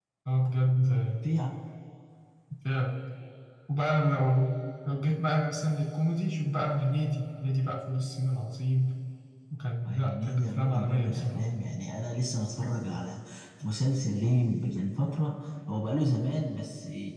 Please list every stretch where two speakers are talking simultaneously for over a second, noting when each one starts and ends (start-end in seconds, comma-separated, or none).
9.9-11.5